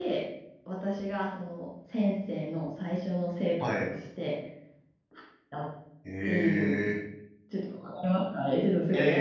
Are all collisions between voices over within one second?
Yes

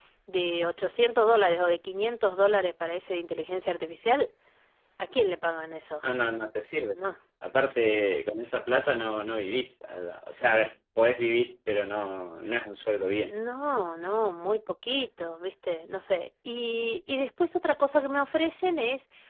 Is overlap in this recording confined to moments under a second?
Yes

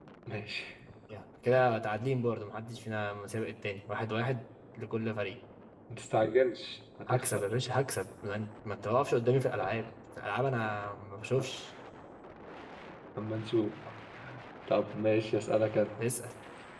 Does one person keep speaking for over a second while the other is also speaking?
No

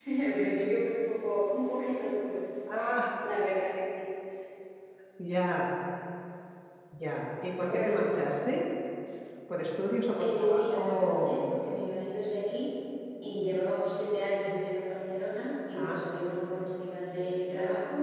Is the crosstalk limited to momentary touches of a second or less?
No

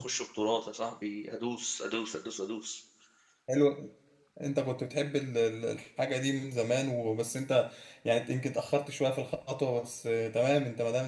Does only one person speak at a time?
Yes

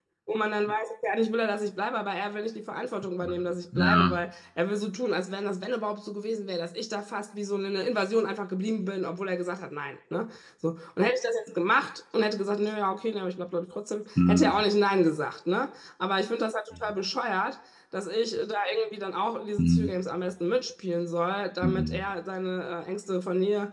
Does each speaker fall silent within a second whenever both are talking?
Yes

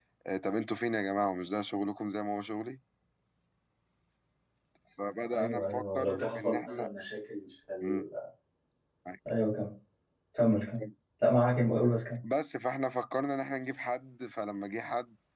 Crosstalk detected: Yes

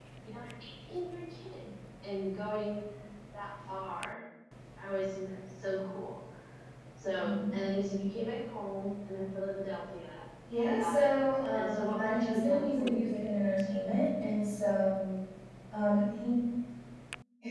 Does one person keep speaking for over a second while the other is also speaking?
Yes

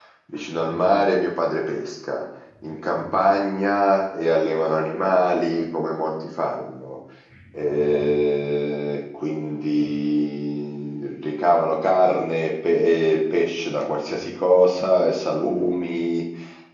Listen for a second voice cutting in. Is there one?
No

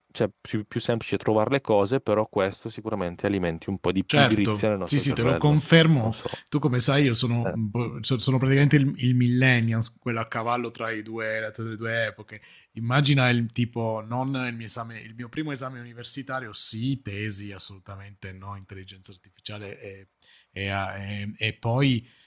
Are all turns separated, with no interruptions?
No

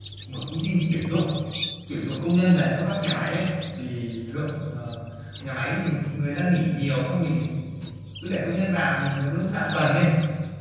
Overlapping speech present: No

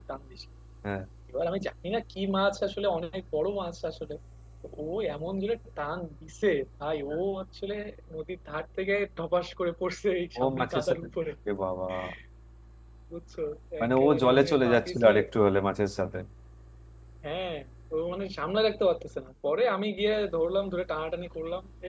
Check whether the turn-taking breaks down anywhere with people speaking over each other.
Yes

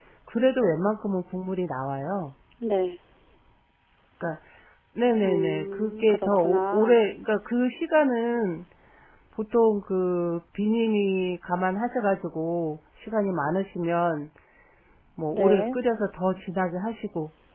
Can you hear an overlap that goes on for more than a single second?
Yes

